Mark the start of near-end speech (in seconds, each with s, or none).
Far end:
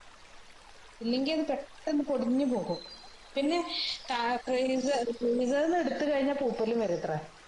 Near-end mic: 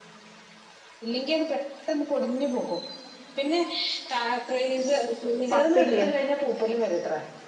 5.5 s